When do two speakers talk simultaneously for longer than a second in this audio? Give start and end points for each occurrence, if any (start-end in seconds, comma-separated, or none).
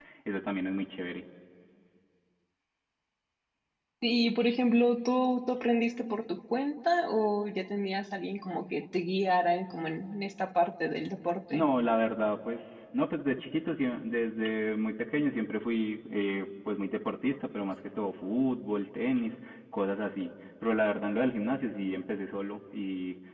none